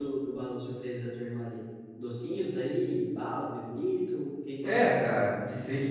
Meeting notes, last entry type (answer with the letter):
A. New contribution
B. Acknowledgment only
A